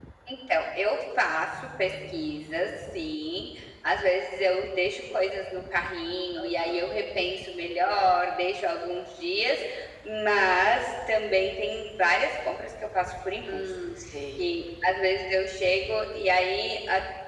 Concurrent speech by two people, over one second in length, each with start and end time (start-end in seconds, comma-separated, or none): none